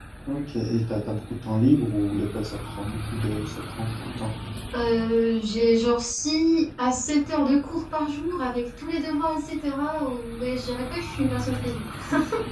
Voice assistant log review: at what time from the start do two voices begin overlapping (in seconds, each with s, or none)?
none